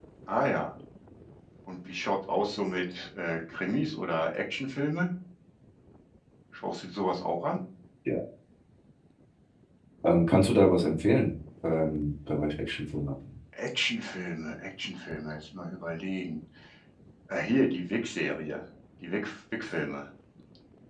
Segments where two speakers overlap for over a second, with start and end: none

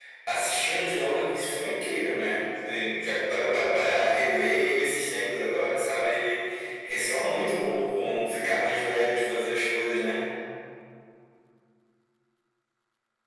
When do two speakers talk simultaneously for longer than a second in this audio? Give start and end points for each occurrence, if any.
none

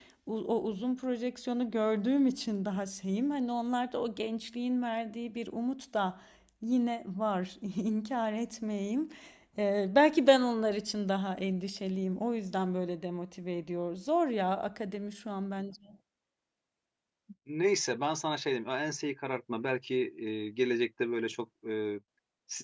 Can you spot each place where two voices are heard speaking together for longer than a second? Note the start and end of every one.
none

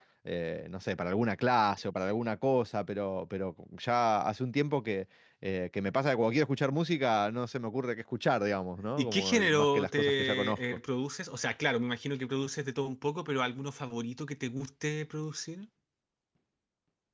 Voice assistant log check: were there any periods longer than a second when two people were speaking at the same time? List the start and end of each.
9.0-10.6

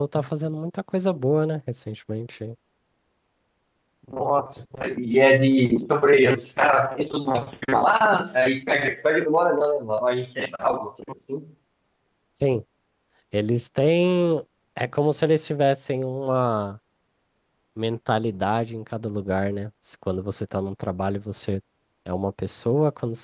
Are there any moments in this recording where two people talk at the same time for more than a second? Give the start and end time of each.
none

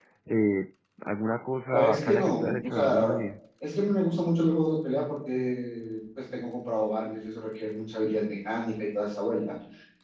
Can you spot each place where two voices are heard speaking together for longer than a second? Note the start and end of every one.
1.7-3.1

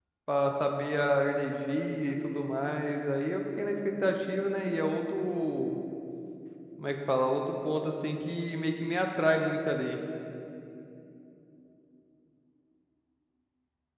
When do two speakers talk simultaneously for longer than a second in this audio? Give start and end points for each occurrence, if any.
none

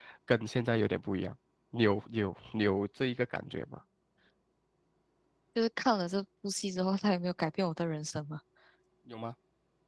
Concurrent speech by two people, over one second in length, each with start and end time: none

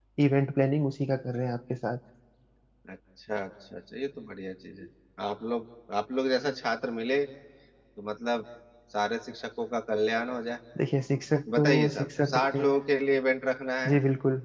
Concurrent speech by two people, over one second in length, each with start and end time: 11.6-12.8

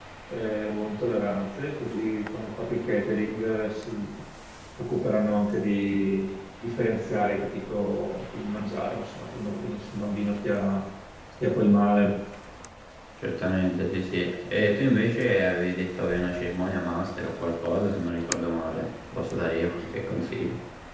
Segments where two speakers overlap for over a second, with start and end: none

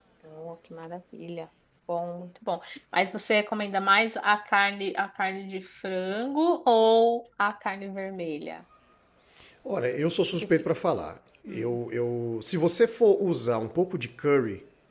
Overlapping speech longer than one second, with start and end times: none

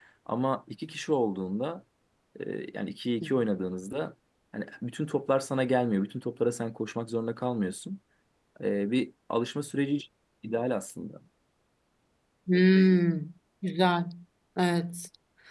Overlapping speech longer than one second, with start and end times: none

